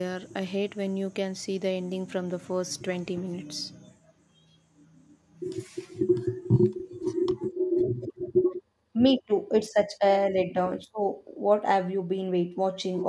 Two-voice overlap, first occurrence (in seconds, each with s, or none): none